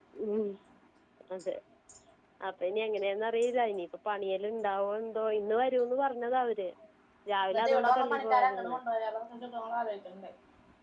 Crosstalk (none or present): present